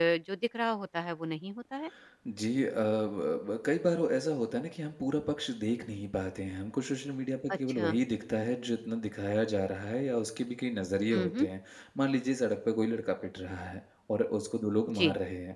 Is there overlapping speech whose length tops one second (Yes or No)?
No